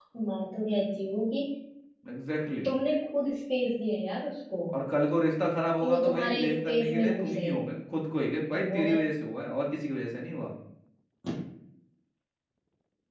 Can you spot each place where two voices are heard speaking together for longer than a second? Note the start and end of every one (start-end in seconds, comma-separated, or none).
5.8-7.4